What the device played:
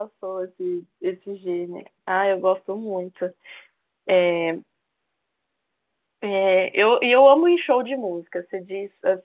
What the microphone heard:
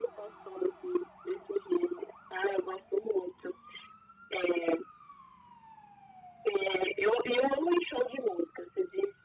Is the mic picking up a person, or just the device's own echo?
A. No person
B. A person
A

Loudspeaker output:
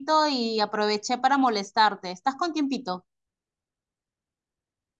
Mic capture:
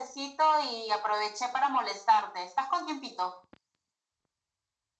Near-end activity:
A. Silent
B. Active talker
A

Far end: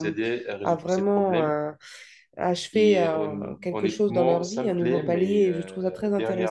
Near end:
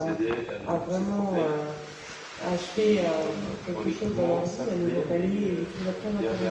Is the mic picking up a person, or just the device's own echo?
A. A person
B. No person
B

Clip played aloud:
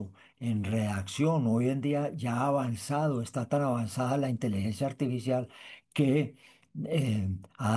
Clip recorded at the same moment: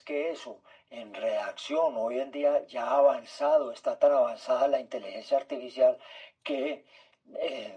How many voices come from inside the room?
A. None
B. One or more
A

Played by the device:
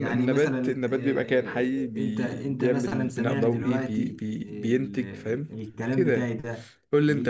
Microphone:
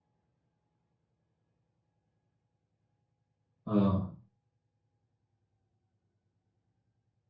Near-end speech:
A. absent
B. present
B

